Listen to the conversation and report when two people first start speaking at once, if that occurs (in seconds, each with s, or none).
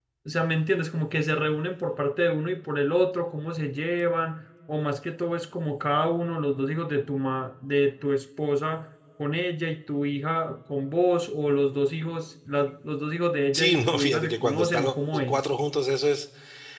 13.5 s